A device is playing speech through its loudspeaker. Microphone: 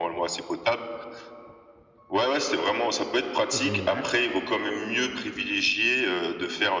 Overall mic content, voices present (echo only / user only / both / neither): both